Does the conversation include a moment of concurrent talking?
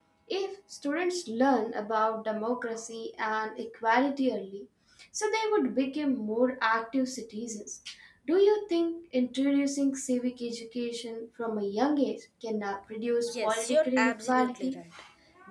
Yes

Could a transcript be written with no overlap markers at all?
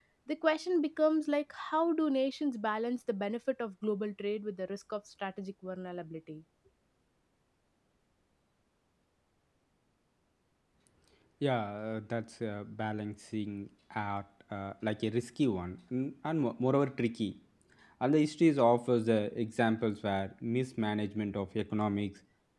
Yes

